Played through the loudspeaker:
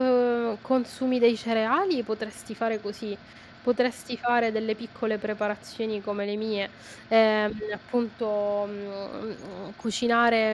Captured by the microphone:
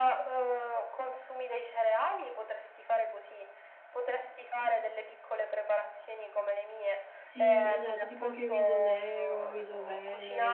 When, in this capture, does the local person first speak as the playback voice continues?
7.1 s

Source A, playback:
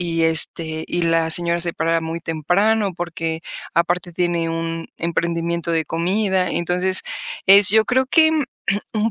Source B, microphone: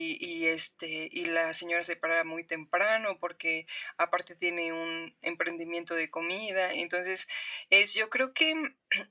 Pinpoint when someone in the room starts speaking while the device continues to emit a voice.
none

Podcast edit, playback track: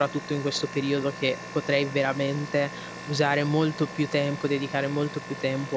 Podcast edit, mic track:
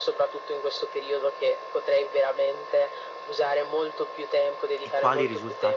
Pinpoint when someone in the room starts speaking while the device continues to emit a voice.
4.8 s

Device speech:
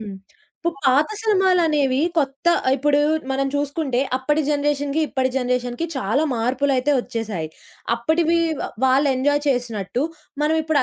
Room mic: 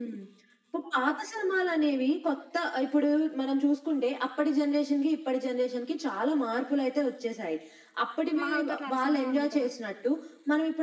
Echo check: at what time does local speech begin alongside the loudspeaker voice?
8.4 s

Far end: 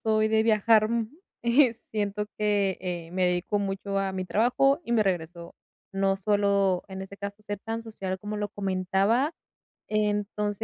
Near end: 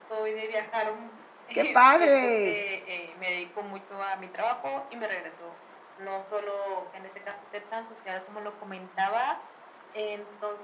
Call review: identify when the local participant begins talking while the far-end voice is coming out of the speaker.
1.5 s

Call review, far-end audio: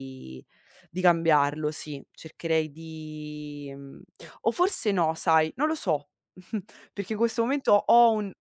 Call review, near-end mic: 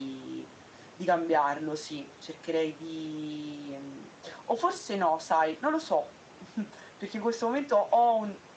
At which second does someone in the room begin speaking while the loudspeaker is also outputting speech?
none

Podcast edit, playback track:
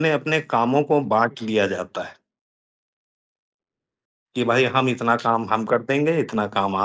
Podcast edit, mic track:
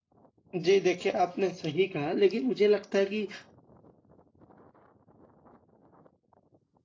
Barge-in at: 0.6 s

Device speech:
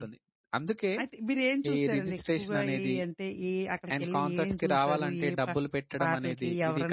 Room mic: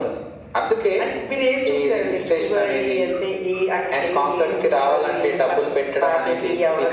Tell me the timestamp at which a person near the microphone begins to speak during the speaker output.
none

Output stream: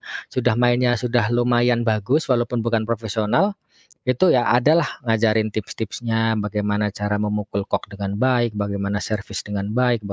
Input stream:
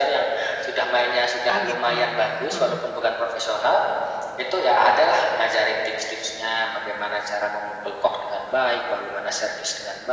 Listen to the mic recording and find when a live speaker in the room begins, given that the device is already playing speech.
1.5 s

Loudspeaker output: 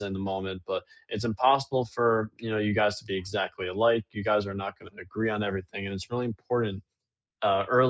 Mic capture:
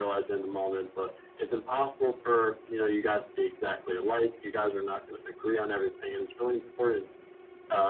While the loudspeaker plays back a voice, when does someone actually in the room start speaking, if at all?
none

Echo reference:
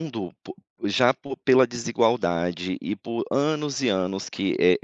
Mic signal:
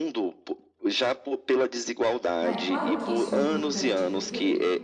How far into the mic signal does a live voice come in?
2.4 s

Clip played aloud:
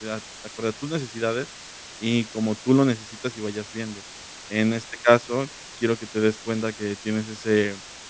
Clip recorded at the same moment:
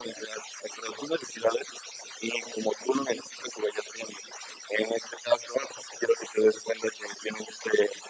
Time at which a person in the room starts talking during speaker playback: none

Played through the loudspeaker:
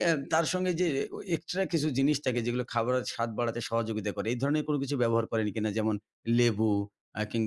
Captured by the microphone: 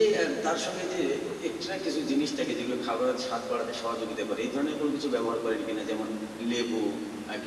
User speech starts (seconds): none

